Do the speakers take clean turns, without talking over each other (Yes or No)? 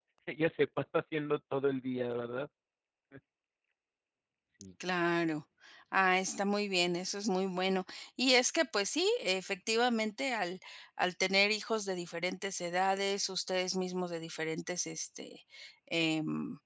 Yes